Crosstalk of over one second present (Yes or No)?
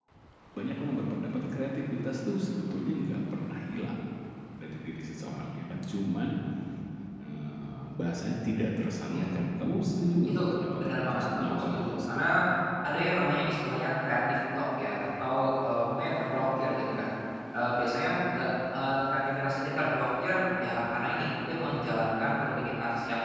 Yes